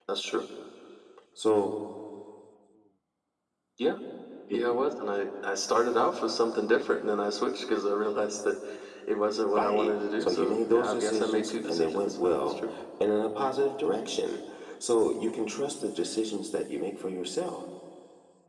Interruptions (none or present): present